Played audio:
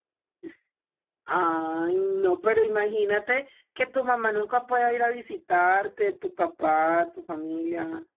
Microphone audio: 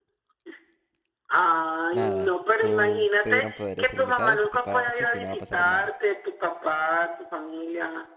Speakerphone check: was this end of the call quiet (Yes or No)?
No